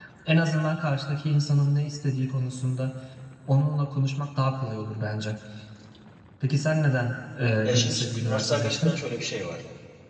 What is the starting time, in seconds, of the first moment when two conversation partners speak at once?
7.6 s

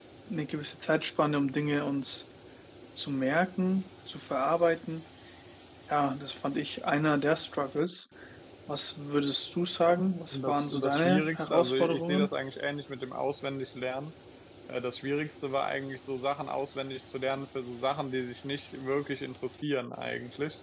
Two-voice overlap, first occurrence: 10.3 s

